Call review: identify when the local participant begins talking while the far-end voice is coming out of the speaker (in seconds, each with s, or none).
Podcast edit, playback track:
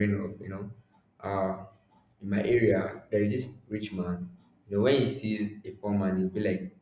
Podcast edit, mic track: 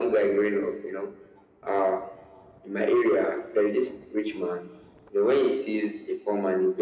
none